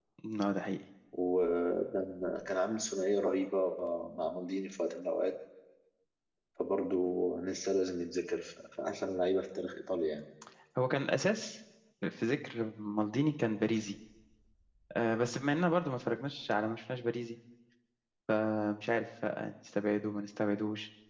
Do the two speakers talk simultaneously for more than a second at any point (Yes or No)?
No